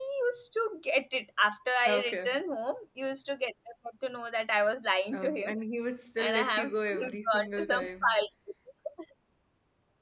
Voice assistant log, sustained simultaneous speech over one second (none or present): present